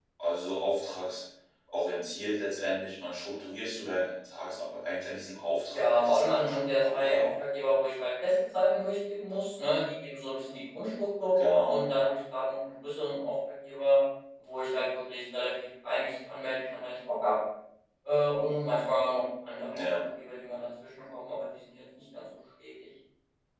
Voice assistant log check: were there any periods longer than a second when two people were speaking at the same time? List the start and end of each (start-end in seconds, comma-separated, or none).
5.7-7.2